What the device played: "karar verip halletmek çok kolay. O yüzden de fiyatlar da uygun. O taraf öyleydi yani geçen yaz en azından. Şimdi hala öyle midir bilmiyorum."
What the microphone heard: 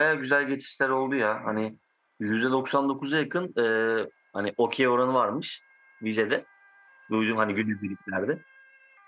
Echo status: none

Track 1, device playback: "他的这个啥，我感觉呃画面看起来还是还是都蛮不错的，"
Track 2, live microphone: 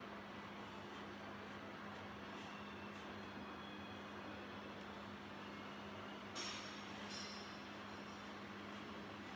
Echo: none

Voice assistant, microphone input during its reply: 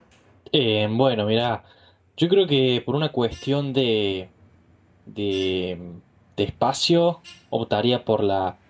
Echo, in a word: none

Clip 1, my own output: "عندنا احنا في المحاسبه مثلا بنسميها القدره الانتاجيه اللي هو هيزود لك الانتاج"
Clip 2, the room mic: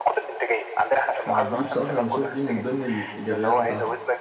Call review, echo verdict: present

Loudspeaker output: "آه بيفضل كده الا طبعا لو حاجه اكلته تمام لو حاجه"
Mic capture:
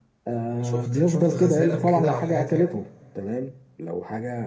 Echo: present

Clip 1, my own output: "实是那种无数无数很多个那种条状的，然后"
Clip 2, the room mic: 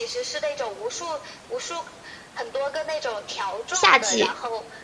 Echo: present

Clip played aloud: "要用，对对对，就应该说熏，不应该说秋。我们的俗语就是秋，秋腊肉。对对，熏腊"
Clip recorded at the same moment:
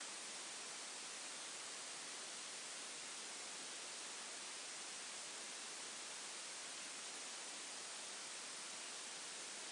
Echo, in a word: none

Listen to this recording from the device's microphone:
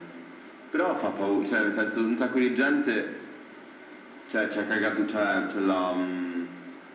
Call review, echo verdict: present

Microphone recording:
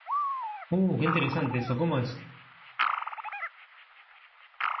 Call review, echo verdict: none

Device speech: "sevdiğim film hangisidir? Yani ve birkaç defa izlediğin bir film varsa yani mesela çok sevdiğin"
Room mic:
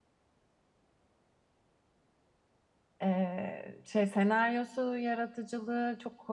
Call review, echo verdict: none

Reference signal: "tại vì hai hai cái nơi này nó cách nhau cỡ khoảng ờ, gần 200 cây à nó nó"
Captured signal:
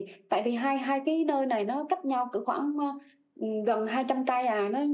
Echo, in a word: present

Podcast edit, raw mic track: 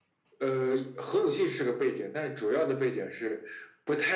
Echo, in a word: present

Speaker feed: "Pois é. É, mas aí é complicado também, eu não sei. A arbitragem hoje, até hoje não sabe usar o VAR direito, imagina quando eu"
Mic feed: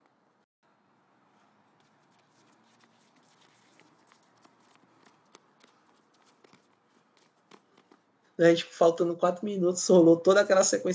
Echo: none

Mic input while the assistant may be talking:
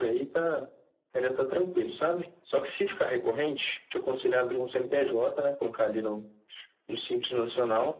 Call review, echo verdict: present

